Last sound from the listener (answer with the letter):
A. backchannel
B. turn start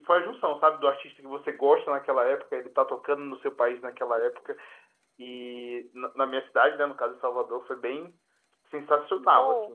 B